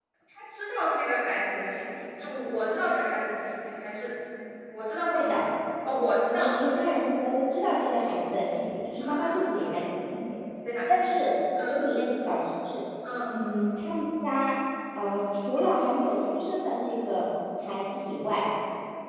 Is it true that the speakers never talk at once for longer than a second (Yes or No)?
Yes